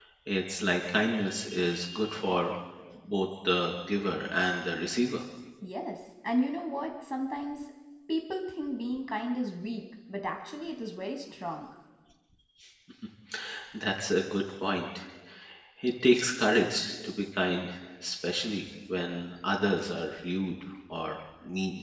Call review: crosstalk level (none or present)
none